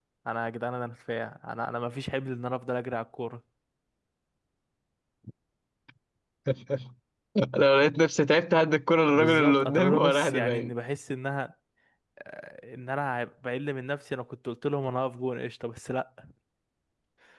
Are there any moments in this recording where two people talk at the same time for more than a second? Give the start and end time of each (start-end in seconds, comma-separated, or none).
9.1-10.7